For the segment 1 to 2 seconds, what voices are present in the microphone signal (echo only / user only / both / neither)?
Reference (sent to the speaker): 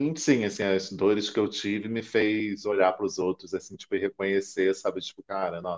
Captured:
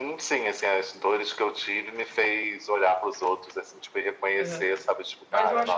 echo only